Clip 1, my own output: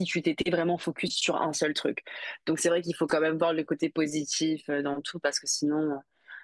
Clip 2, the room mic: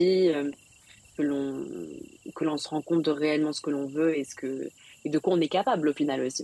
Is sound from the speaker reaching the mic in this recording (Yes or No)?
No